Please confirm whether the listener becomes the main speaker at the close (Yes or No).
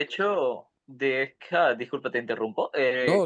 No